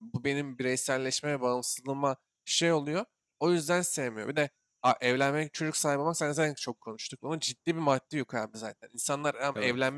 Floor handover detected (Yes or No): No